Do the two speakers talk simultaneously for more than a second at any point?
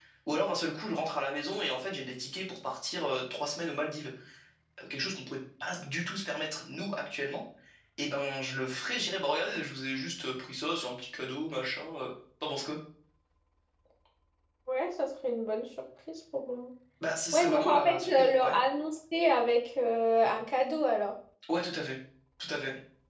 Yes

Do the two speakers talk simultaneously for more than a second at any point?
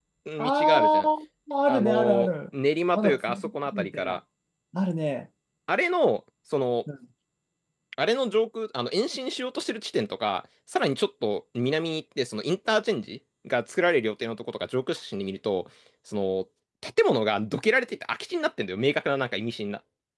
Yes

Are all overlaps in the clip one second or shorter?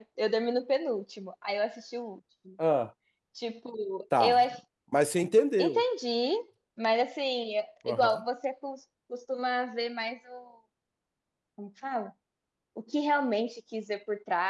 Yes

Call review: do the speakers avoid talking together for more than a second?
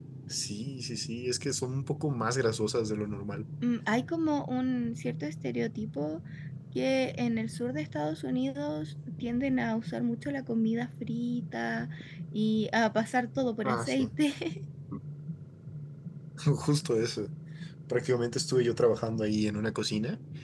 Yes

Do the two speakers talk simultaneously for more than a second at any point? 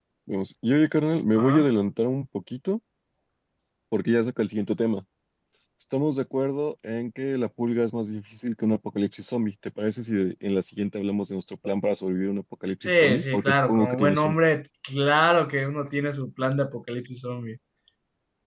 Yes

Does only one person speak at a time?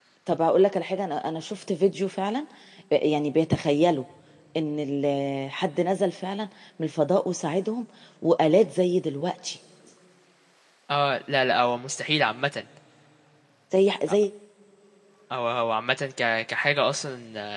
Yes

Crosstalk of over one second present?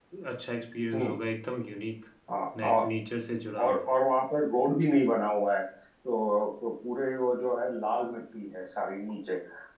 No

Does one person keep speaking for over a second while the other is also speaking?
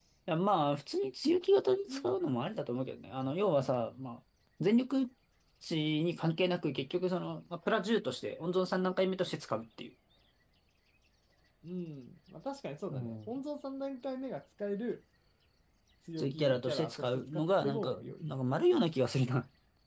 Yes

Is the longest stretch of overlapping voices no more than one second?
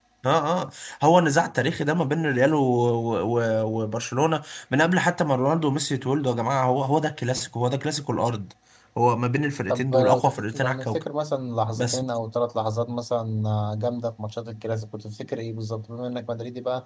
No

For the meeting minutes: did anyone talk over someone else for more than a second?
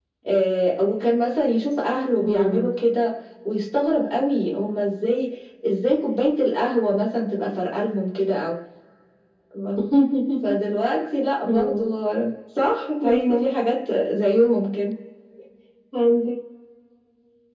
No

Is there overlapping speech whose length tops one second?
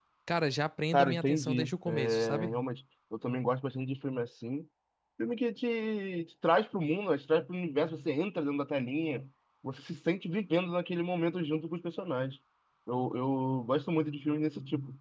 Yes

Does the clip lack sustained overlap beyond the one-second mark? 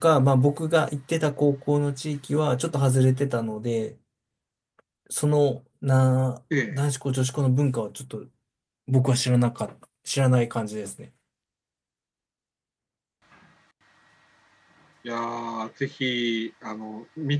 Yes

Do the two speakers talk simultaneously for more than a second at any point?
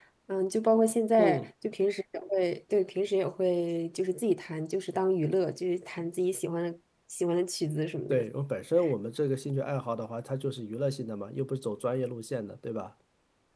No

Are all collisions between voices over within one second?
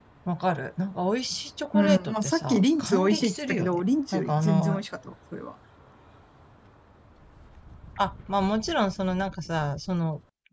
No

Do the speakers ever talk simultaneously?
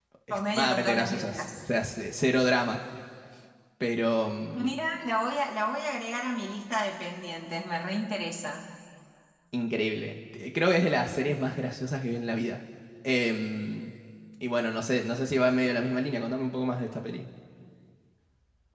Yes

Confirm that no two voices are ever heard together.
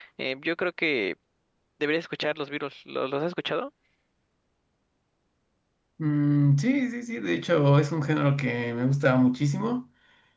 Yes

